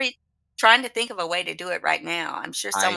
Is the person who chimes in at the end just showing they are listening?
No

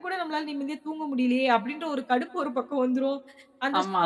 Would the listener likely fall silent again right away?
Yes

